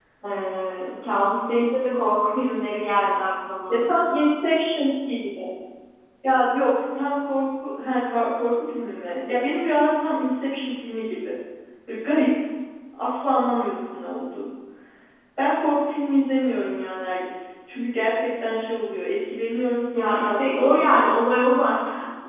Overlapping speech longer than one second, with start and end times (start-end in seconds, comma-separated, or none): 19.9-21.2